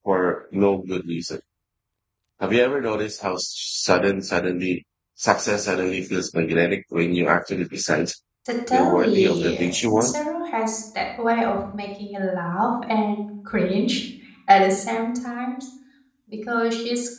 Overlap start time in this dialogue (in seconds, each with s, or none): 8.7 s